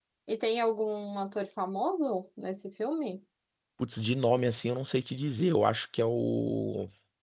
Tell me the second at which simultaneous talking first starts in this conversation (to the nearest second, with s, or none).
none